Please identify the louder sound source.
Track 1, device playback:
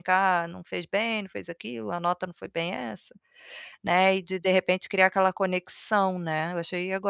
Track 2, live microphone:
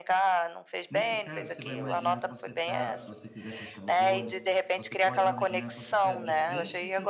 echo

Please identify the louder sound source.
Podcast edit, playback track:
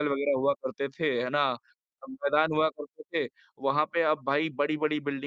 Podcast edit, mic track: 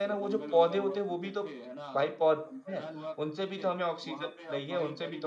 user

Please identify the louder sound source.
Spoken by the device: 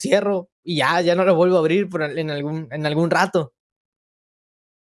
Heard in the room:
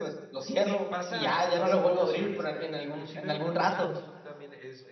echo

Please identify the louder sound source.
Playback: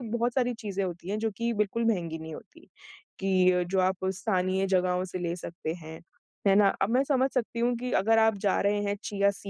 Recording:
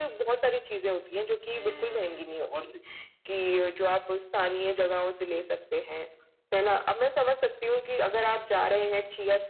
echo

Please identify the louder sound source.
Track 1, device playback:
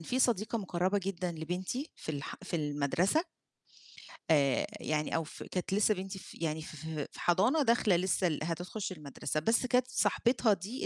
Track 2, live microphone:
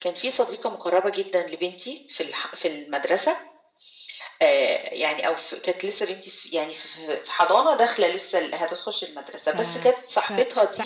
echo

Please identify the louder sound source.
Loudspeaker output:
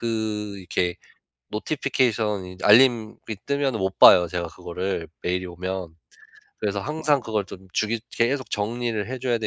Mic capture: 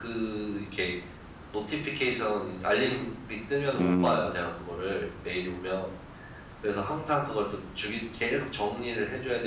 user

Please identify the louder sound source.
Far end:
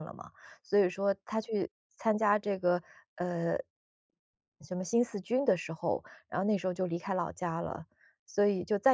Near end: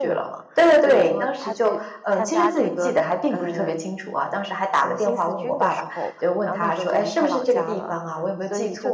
user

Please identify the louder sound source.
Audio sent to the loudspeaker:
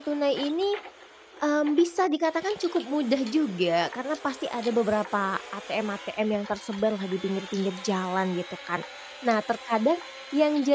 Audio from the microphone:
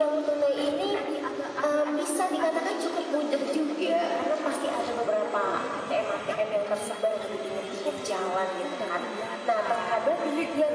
echo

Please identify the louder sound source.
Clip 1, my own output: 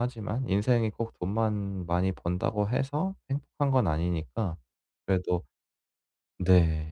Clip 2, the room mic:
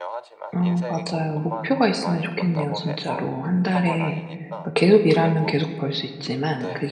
user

